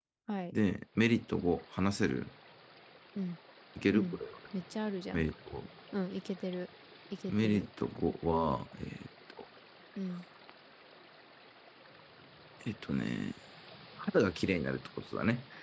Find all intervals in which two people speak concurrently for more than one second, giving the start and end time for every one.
none

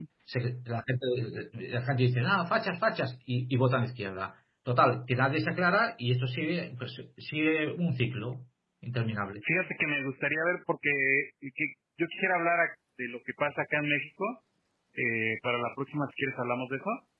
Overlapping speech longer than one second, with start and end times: none

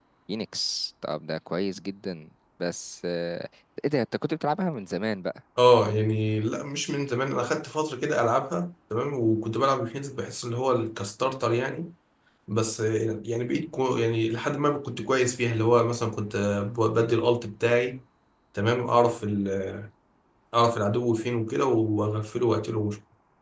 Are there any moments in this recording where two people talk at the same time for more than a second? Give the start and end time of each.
none

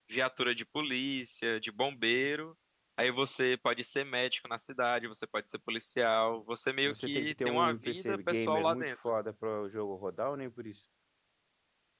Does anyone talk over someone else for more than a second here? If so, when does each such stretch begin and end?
6.8-8.8

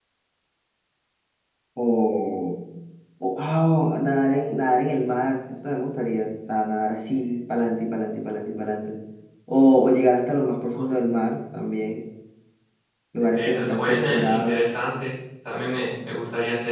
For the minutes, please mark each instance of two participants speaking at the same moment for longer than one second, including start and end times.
13.3-14.7

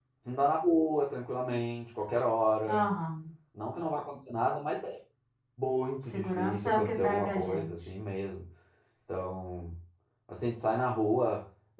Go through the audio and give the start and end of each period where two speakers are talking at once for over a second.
6.1-7.7

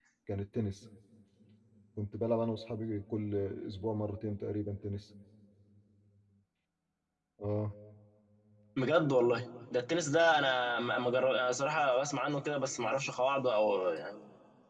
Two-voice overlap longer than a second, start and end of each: none

